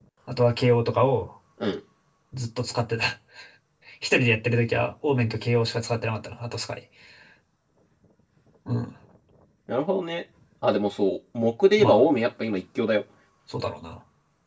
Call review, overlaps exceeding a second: none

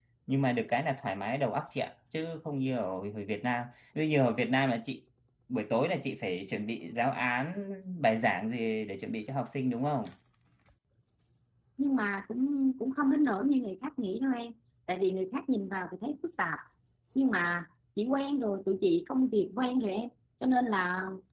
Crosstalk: none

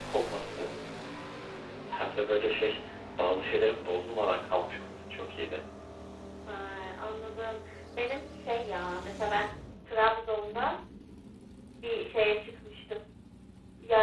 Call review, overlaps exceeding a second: none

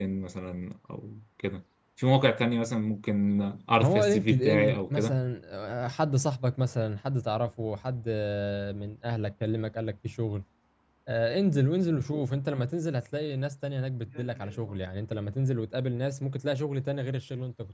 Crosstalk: present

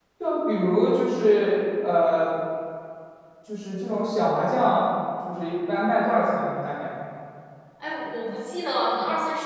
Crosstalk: none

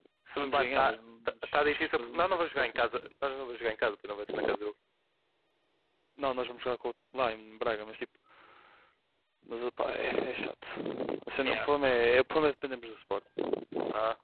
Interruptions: present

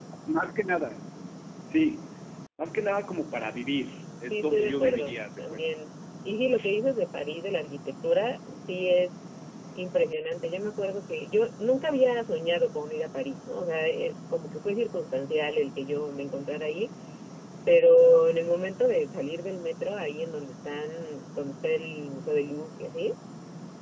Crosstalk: present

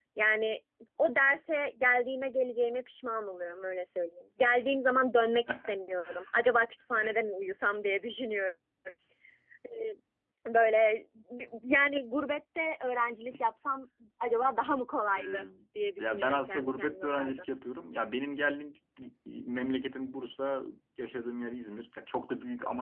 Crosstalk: present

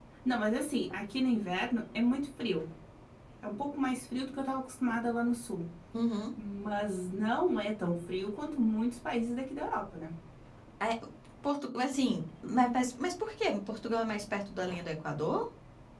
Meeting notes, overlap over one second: none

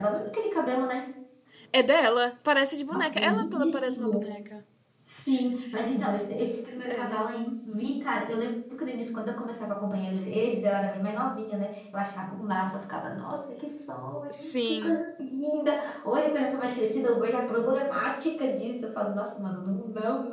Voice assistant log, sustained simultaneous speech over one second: present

